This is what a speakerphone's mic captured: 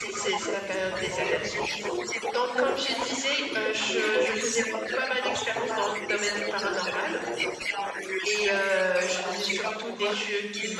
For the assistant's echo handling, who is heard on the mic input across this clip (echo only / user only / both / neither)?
both